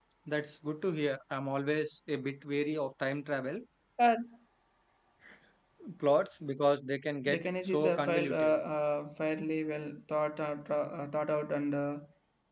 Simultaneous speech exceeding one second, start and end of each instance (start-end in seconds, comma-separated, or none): 7.3-8.6